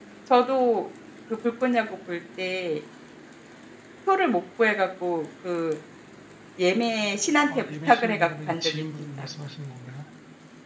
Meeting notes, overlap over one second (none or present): present